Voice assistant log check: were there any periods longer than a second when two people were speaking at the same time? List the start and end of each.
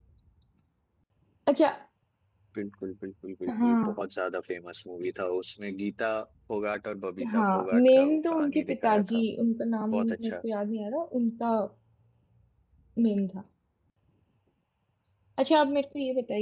7.3-9.2

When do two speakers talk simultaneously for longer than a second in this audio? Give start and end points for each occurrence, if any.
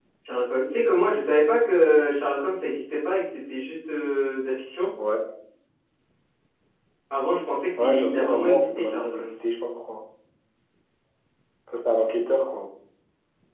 7.8-9.3

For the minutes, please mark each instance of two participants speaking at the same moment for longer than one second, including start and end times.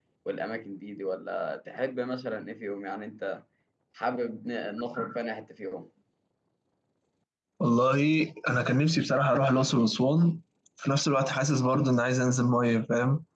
none

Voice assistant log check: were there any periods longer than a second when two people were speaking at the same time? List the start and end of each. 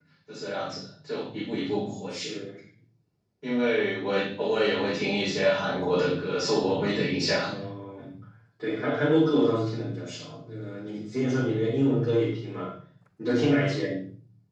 none

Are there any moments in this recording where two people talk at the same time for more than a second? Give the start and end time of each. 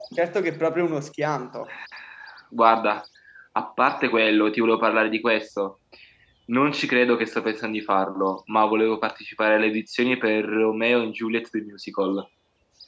none

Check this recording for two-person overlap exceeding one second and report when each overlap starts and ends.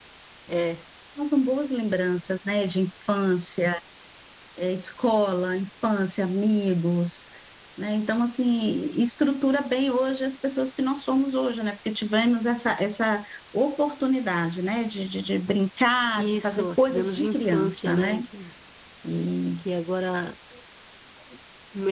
16.2-18.2

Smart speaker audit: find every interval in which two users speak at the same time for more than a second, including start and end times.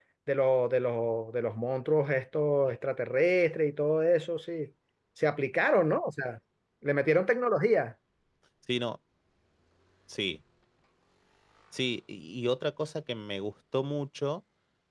none

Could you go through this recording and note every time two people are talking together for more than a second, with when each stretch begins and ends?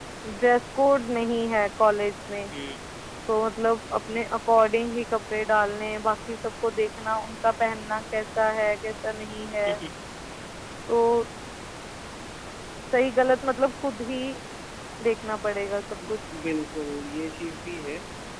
none

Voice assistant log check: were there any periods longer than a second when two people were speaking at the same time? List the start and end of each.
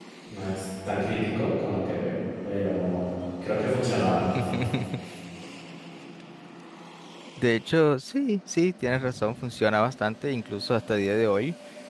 none

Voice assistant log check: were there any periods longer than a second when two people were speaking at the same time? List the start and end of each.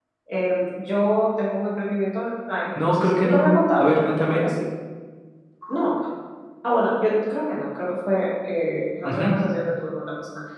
2.8-4.4

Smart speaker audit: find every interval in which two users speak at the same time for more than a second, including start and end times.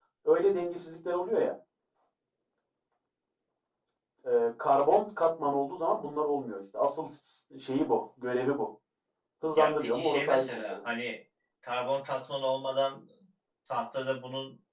9.6-10.8

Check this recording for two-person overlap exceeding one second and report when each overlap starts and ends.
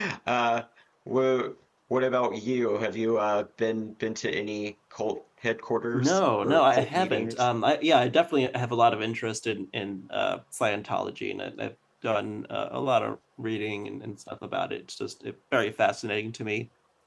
5.9-7.5

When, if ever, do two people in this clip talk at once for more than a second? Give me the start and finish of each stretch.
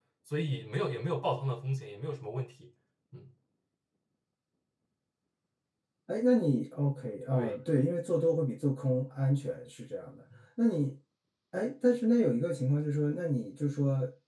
none

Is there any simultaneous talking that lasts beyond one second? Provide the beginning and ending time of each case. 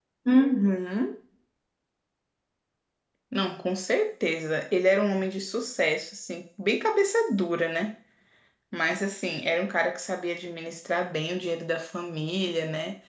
none

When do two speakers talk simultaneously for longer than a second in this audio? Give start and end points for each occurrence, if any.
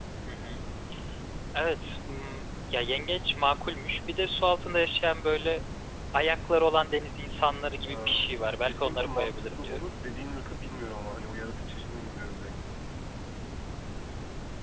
8.6-9.9

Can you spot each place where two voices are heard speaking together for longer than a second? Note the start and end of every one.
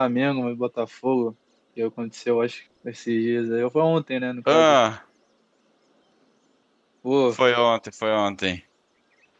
none

